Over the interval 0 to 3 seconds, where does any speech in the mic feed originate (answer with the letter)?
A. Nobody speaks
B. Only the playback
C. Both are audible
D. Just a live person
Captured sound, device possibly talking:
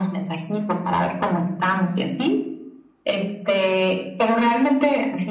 B